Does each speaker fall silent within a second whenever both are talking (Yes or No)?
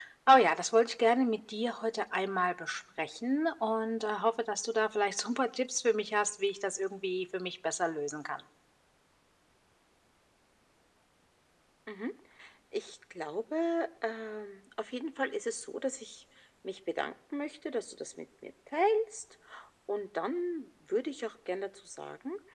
Yes